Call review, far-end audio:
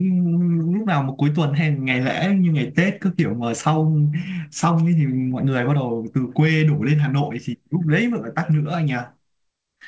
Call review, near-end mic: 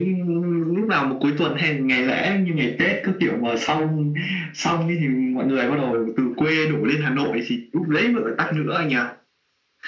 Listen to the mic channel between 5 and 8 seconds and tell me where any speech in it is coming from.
echo only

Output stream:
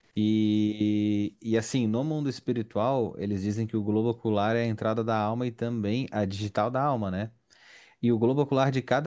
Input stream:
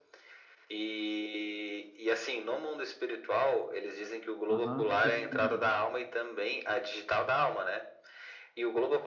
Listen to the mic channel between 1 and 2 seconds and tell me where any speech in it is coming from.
echo only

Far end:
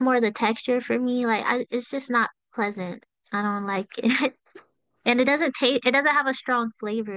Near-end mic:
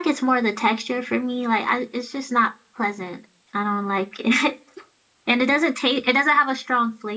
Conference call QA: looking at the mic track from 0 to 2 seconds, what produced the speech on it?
echo only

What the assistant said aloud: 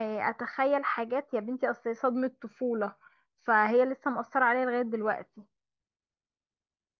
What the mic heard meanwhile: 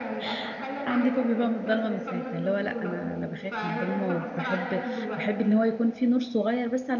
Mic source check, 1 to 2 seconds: both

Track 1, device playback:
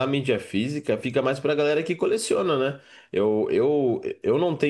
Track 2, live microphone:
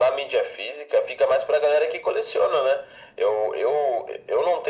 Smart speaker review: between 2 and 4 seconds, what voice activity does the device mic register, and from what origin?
echo only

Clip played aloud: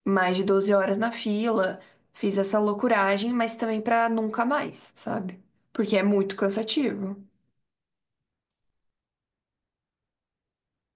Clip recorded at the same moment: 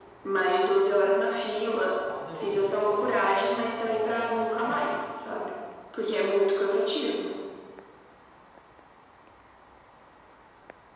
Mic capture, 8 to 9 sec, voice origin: neither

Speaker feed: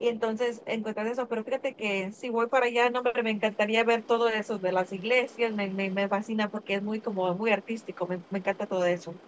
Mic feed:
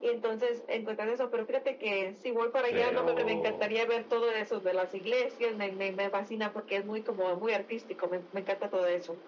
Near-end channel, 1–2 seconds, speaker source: echo only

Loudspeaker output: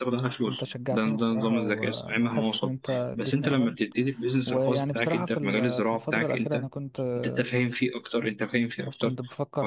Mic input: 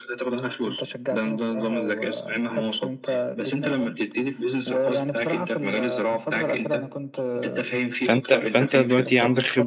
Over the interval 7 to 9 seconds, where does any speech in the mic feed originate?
both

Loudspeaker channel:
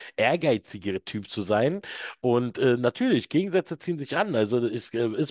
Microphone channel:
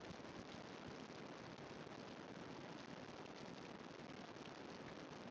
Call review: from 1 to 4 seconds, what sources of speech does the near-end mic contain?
neither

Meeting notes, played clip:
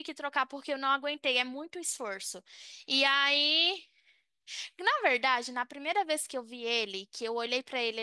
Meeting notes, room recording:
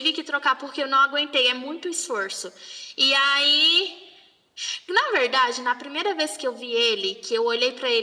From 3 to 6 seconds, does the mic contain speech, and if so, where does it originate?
echo only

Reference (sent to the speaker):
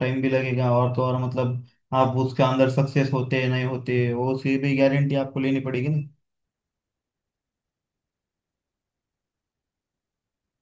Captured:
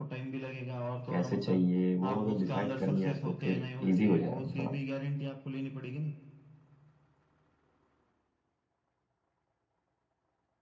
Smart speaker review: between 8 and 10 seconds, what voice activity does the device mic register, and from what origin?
neither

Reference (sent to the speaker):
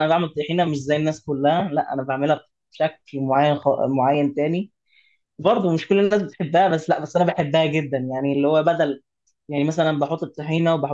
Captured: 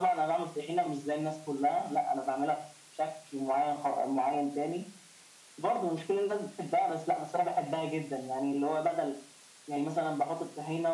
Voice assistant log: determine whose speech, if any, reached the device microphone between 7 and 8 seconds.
echo only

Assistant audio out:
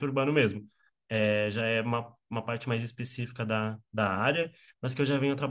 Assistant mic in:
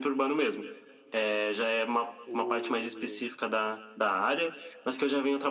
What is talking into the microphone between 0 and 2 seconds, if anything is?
echo only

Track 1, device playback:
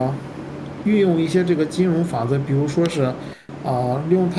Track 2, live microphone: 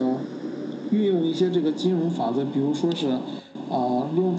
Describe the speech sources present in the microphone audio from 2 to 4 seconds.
echo only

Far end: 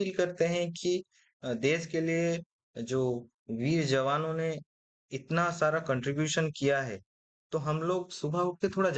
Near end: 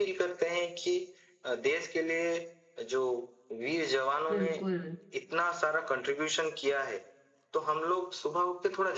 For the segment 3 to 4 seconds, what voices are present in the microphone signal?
echo only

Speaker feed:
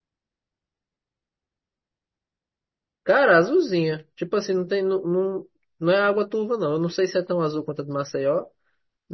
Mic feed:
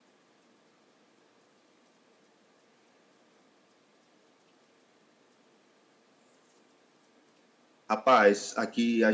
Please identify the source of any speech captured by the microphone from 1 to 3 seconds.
neither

